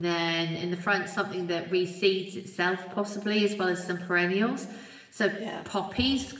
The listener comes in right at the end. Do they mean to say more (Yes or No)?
No